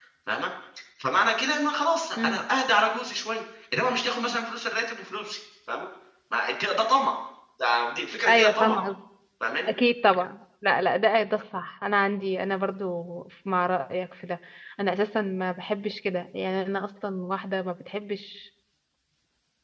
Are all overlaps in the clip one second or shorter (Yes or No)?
Yes